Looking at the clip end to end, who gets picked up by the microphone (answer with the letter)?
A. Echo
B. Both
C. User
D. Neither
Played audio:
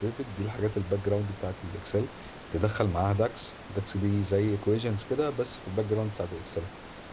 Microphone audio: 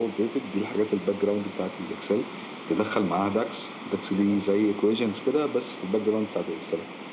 B